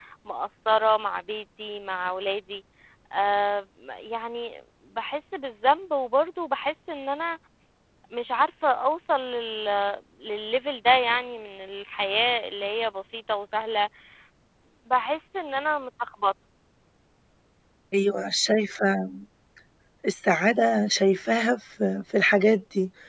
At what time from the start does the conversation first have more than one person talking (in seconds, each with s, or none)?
none